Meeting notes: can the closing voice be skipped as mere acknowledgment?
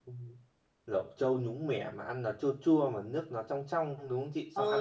No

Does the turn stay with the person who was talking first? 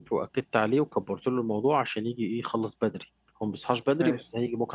Yes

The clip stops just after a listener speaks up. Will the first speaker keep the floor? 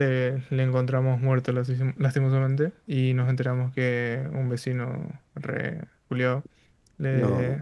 Yes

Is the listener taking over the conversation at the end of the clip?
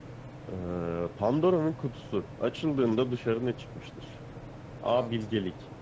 No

